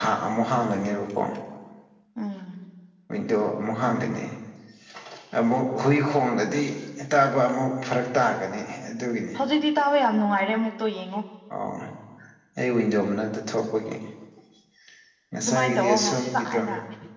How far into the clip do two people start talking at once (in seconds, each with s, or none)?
15.4 s